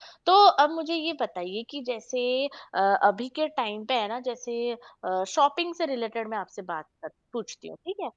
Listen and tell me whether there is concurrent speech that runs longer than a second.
No

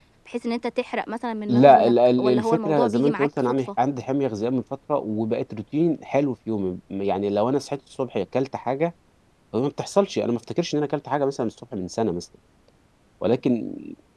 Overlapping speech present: Yes, from 1.5 s

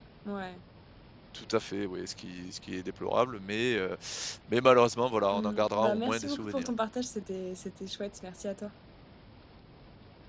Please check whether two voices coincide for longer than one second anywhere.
Yes, from 5.3 s

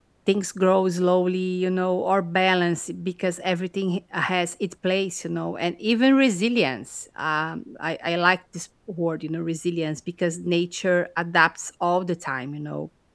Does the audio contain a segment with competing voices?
No

